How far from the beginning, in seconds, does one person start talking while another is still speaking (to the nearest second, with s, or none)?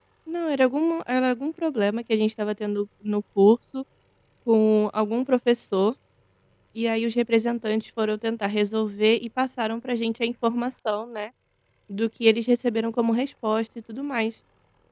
none